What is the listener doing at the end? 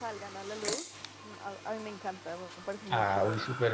taking over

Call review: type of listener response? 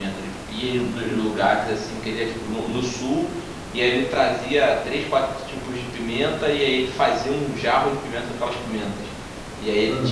listening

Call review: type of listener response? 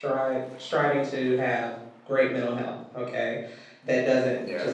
listening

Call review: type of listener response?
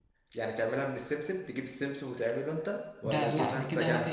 taking over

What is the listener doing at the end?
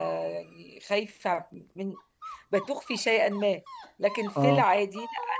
listening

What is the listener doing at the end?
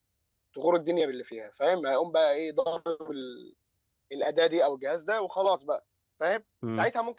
listening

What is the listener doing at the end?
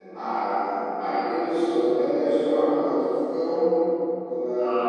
listening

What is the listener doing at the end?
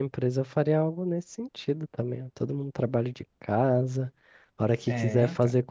listening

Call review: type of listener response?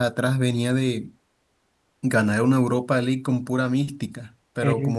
listening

